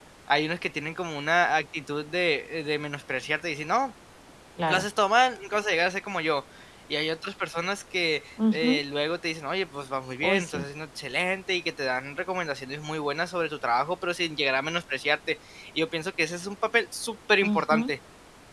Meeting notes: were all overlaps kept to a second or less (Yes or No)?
Yes